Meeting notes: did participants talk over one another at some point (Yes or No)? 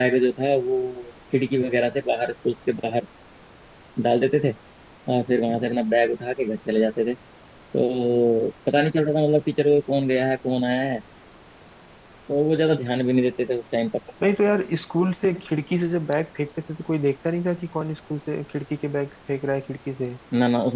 No